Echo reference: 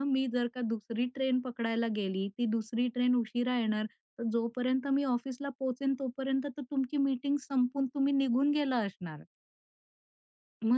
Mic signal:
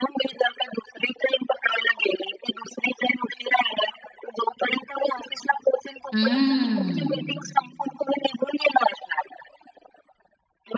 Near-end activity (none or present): present